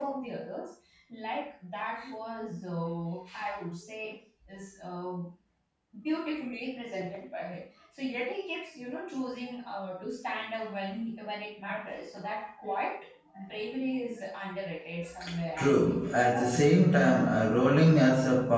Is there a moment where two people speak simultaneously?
Yes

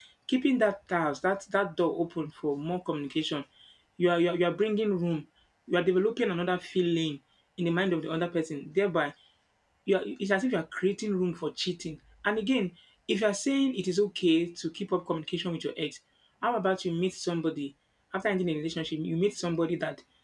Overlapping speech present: No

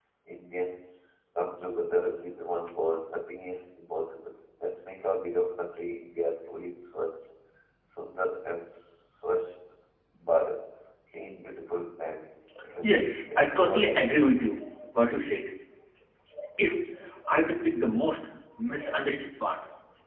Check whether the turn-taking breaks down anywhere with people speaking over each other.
Yes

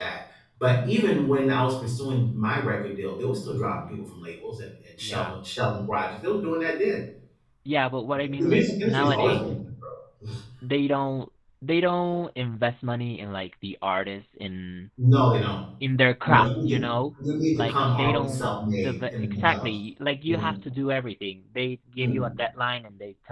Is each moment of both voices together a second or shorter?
No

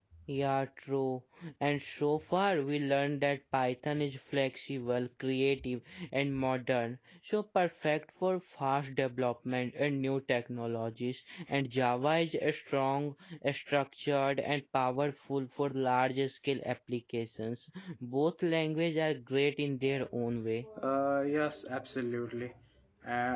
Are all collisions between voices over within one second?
Yes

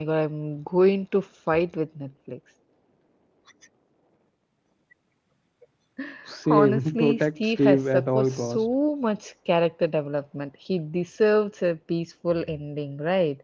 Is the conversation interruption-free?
No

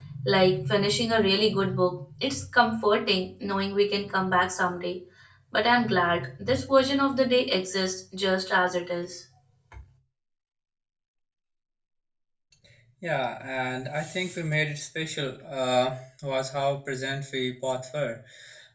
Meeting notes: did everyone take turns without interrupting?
Yes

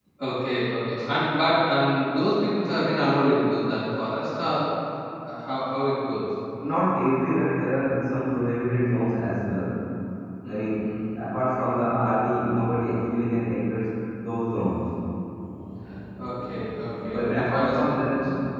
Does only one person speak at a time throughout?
No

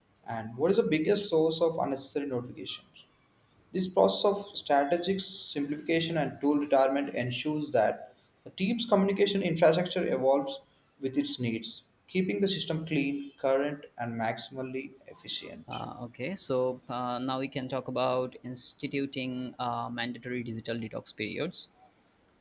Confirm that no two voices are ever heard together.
Yes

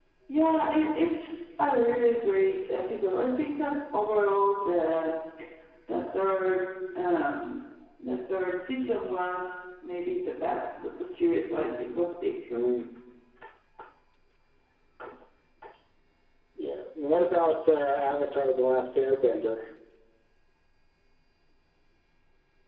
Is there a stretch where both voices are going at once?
No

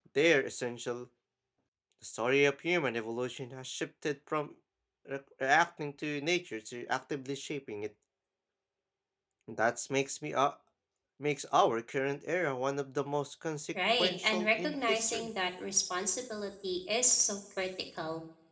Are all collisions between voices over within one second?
No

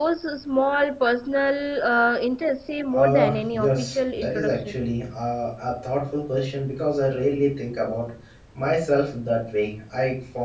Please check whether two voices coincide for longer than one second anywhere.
Yes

